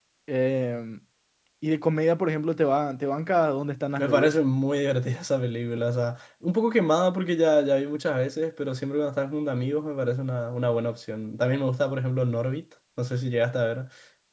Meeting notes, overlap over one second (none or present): none